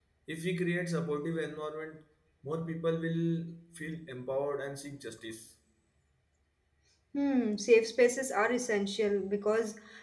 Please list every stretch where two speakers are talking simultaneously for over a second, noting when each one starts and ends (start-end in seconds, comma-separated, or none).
none